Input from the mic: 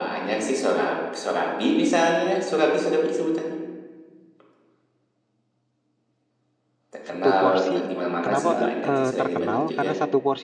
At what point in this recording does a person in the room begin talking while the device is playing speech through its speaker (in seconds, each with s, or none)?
7.1 s